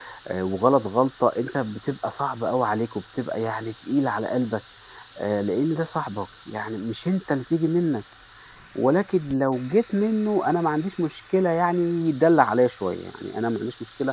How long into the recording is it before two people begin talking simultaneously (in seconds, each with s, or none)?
none